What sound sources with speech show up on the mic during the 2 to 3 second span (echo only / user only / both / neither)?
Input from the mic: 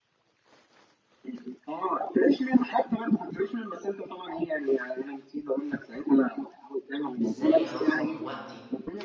echo only